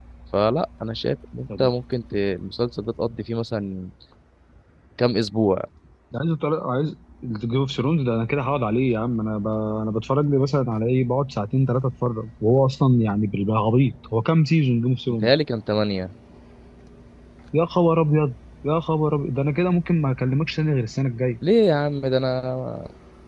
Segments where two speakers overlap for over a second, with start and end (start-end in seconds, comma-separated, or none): none